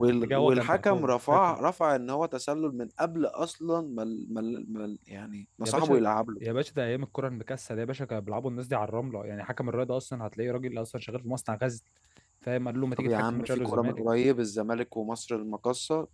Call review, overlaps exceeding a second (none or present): present